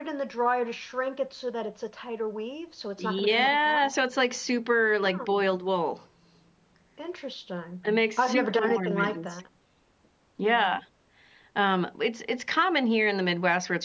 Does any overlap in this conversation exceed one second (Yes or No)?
Yes